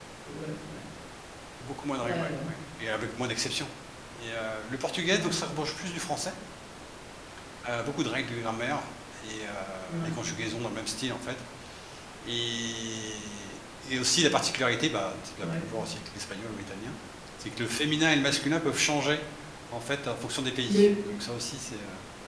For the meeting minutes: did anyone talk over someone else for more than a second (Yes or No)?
No